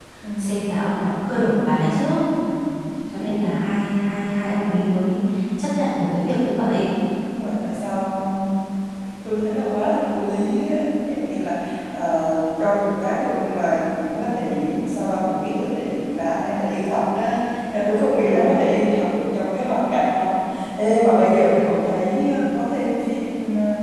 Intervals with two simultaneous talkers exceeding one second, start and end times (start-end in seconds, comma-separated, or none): none